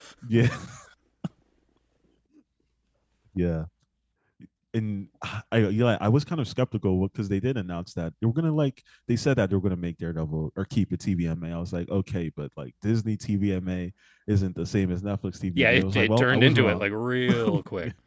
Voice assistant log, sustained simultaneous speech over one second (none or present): present